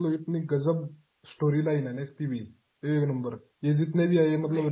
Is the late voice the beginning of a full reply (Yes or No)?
No